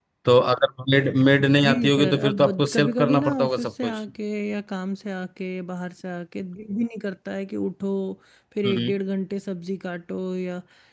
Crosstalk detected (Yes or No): Yes